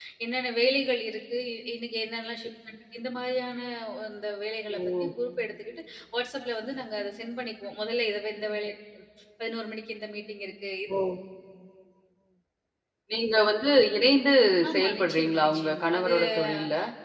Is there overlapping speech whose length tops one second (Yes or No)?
Yes